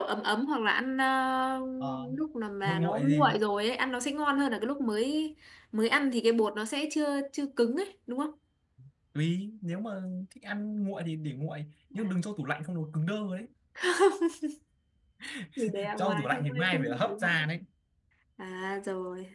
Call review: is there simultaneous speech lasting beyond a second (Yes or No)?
Yes